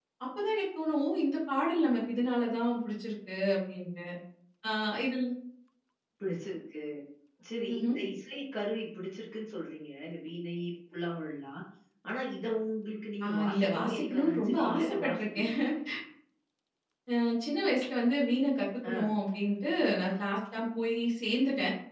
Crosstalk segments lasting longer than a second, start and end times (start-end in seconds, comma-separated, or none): 13.3-15.6